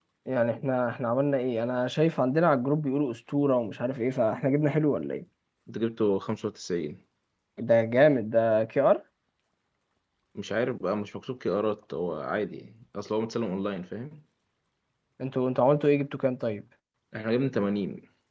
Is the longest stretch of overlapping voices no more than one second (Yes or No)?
Yes